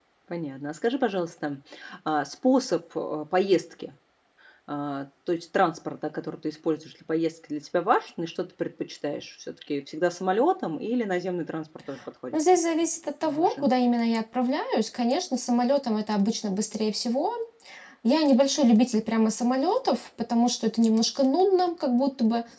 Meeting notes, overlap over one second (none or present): none